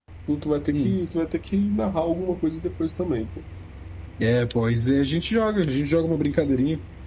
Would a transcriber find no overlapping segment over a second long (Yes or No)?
Yes